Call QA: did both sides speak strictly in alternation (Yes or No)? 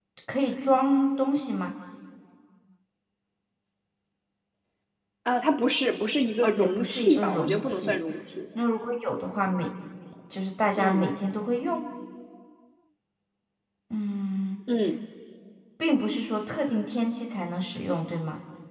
No